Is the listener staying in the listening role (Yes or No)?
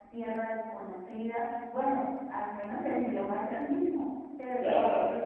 Yes